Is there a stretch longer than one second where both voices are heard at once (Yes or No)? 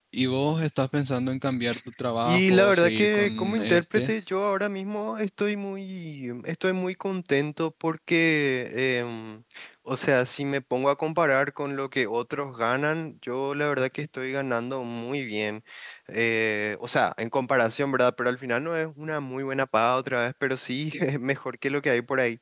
Yes